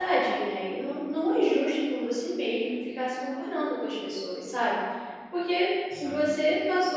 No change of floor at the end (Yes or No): Yes